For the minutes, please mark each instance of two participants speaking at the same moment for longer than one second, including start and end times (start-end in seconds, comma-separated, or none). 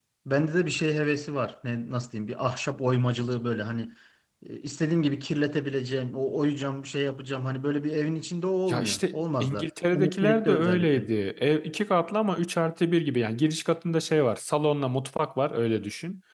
8.7-11.0